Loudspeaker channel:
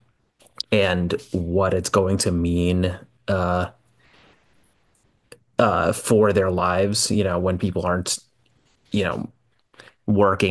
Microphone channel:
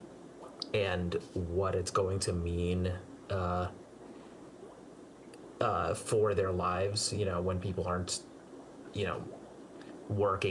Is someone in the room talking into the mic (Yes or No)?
No